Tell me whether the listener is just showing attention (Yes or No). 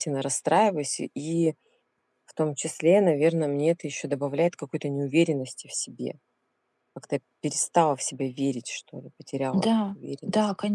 No